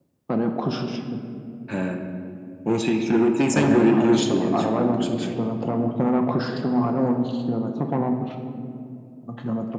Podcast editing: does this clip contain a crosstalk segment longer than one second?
Yes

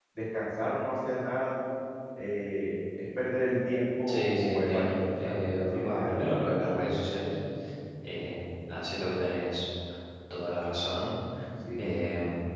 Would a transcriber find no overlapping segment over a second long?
No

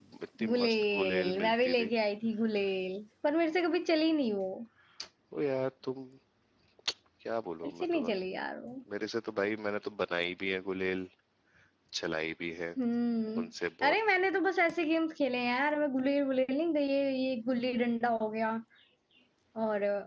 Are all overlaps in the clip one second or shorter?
No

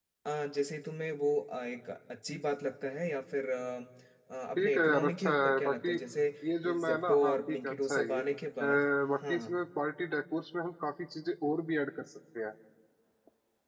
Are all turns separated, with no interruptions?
No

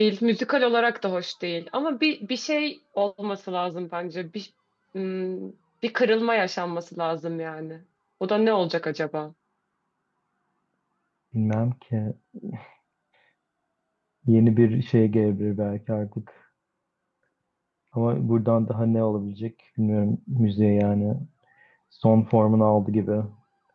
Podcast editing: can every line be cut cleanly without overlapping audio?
Yes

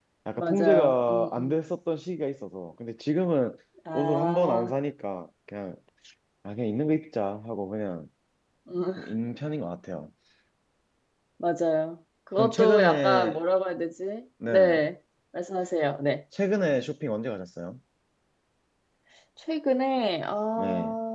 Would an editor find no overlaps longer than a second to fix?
No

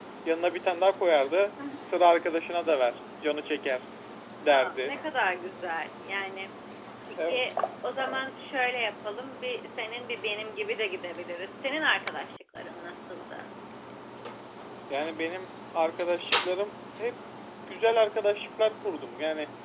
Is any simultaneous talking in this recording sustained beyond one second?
No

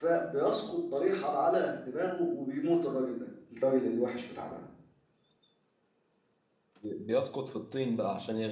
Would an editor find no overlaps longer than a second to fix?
Yes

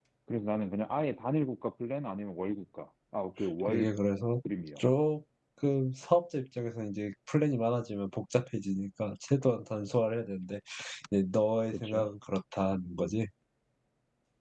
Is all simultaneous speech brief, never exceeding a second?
Yes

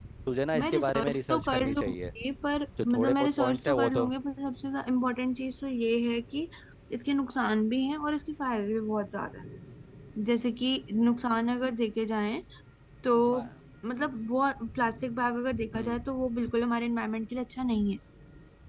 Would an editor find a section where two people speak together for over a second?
Yes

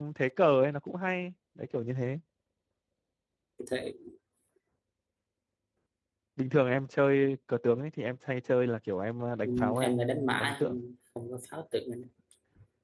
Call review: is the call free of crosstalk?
No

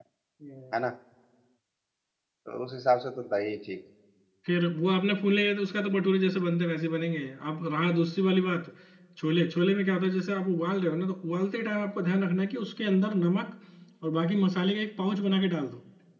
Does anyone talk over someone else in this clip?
No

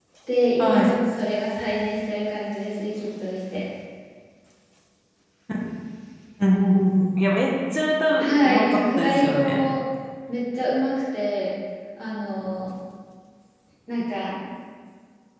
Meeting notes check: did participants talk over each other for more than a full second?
Yes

